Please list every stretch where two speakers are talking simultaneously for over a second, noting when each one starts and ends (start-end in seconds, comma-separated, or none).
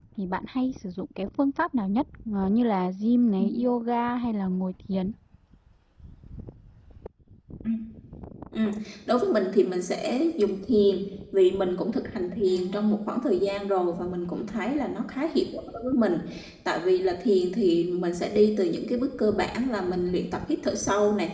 none